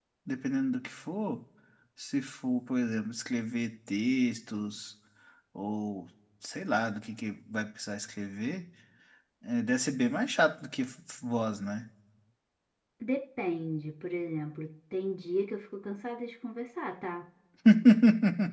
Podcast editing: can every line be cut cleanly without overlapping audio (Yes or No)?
Yes